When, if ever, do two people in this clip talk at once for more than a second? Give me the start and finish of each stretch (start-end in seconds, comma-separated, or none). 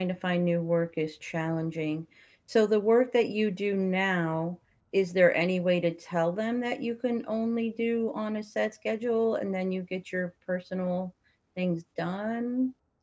none